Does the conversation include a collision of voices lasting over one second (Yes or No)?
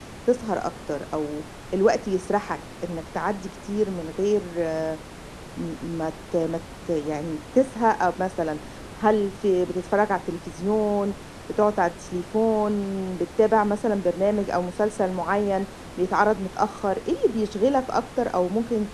No